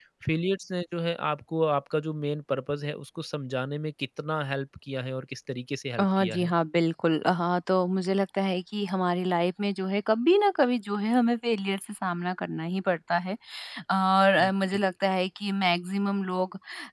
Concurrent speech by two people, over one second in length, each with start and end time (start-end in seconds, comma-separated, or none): none